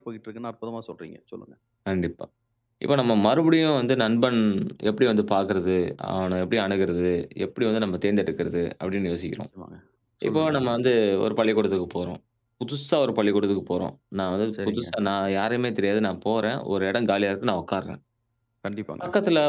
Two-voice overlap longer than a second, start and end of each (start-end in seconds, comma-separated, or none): none